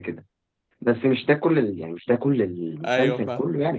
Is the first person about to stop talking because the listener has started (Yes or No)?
No